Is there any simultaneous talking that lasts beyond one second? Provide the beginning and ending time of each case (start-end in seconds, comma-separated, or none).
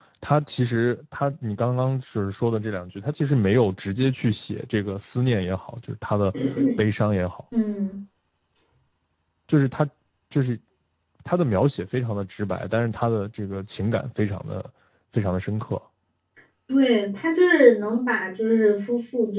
none